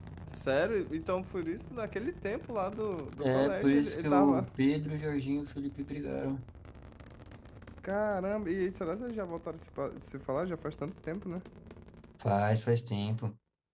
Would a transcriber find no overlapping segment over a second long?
No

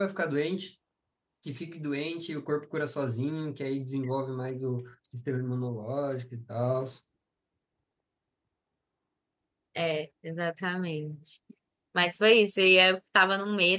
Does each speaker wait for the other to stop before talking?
Yes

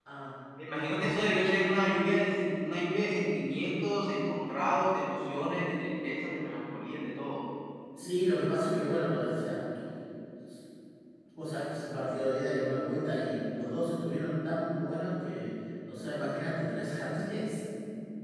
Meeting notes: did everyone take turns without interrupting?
Yes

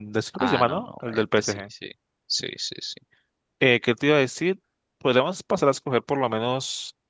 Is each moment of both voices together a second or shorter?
No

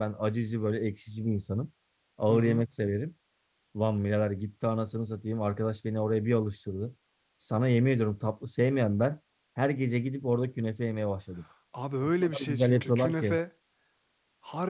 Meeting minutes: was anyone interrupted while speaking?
Yes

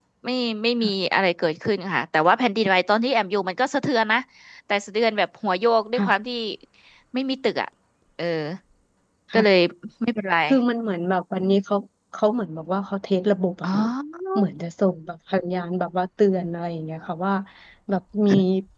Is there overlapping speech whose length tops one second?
No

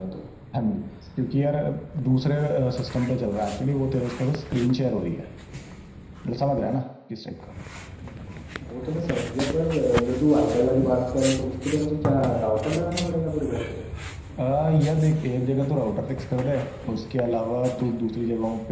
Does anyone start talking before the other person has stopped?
No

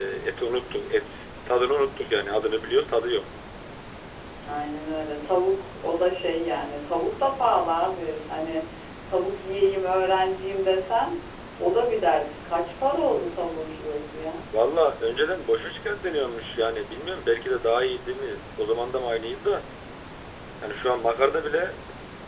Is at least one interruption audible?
No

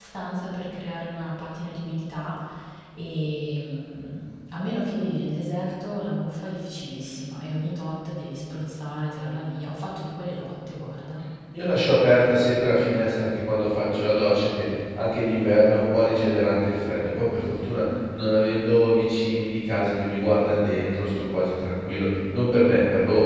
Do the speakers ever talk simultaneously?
No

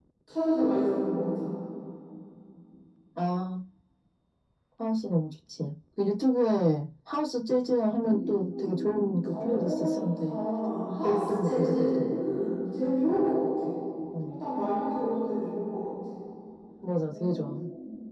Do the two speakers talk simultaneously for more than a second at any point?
Yes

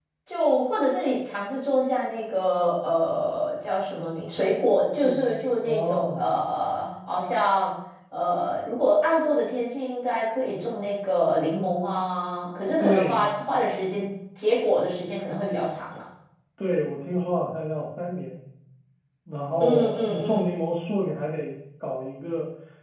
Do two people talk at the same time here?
Yes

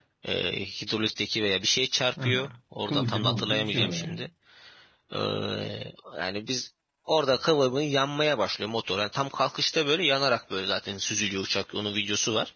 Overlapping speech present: Yes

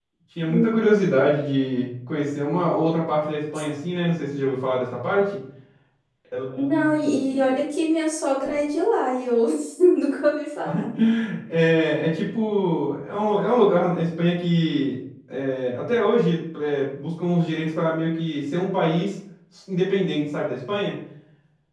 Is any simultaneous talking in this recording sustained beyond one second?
No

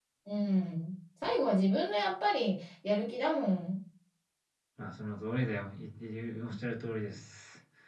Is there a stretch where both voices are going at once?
No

